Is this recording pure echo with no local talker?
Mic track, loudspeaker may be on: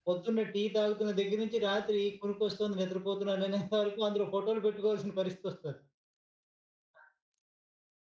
No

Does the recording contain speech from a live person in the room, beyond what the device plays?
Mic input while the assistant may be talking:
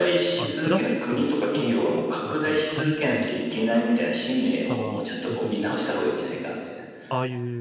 Yes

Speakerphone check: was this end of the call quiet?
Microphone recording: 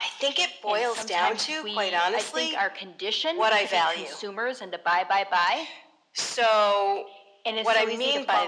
Yes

